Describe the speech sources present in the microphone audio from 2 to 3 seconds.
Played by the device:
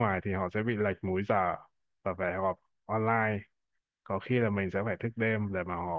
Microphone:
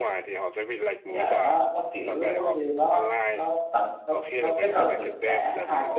both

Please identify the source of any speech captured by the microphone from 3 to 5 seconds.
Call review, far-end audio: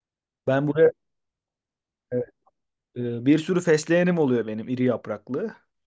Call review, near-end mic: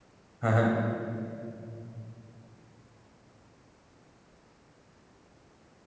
neither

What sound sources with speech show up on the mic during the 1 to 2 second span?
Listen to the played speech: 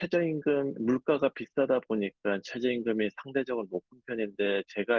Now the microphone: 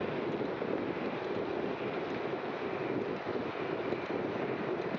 neither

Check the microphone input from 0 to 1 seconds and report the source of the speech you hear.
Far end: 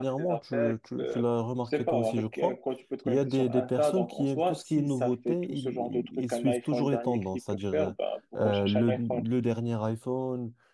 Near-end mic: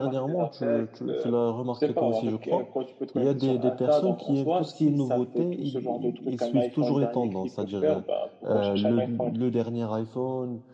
echo only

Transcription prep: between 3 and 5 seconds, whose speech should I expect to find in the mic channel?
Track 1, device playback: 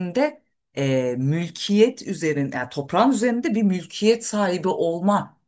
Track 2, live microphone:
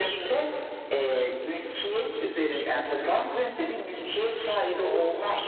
echo only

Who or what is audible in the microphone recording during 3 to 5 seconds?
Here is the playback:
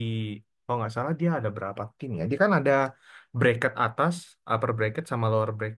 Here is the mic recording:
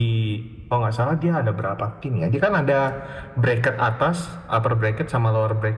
echo only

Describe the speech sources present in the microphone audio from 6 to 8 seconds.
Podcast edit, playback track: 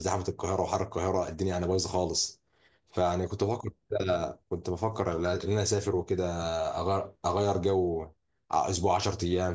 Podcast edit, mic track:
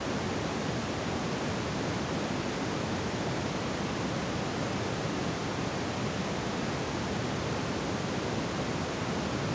neither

